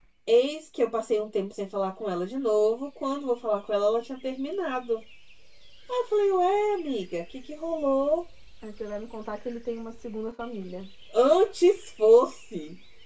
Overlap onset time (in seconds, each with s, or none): none